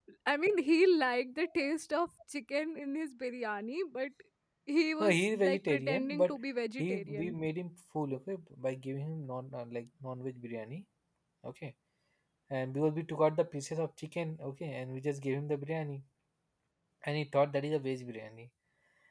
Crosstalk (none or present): present